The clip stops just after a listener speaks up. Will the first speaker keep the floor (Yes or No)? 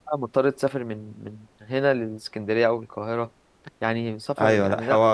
No